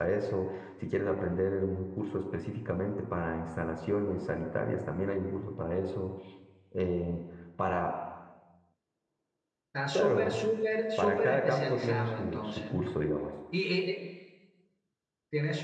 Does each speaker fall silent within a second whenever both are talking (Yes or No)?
No